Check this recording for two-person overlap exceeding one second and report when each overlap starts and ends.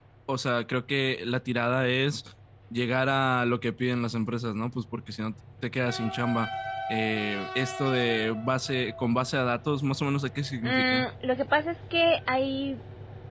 none

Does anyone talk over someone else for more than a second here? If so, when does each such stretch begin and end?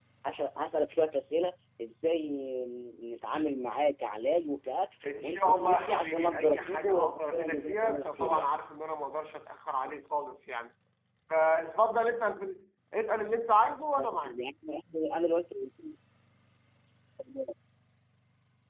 5.2-8.6

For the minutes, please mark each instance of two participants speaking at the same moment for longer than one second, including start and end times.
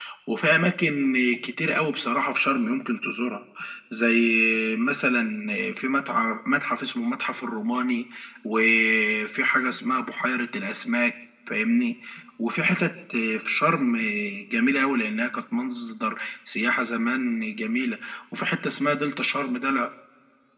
none

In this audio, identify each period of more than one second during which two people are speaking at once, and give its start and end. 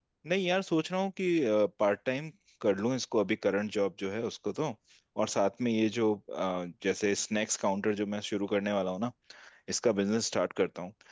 none

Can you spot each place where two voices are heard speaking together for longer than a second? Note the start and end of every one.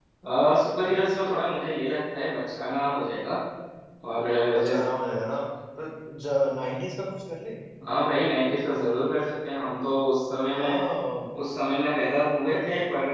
none

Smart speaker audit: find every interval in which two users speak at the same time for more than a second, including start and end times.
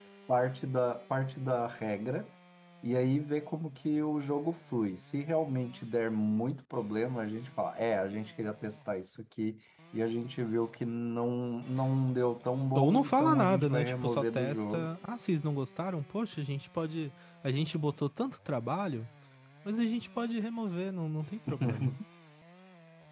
12.8-14.9

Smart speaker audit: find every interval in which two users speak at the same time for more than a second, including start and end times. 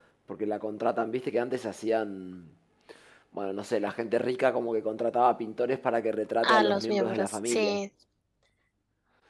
6.4-7.8

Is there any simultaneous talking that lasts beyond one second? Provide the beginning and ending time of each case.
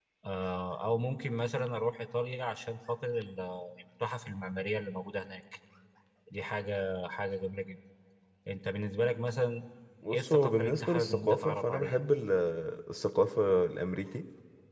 10.1-12.0

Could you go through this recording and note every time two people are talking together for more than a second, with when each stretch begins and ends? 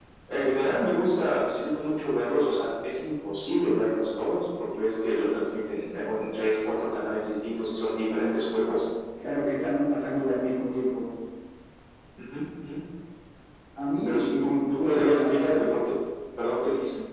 14.0-15.7

